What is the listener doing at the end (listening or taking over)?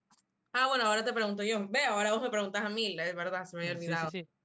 taking over